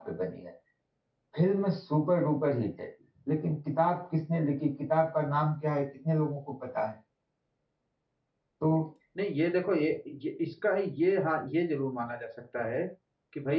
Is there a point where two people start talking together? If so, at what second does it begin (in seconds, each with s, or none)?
none